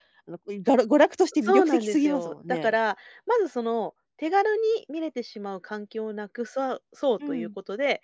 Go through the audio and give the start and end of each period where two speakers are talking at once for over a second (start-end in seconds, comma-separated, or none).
1.4-2.7